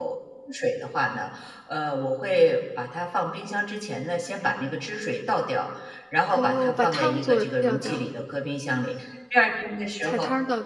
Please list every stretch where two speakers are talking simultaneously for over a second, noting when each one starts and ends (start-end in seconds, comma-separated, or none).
6.3-8.0